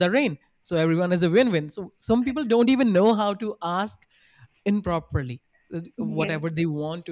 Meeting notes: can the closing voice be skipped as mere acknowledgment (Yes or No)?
Yes